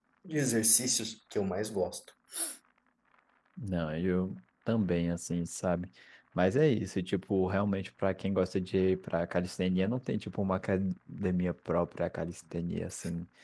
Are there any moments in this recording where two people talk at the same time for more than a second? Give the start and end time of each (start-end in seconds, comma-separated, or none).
none